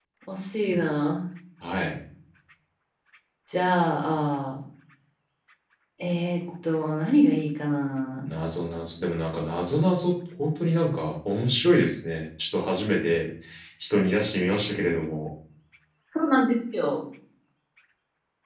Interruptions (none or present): none